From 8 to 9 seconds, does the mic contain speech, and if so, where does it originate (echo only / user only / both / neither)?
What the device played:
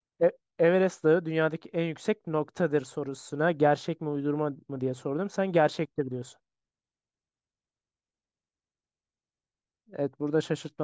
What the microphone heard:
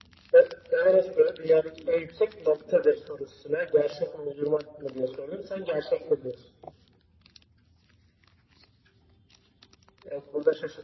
neither